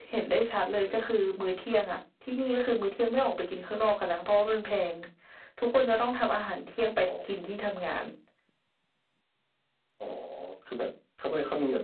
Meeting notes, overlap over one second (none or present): none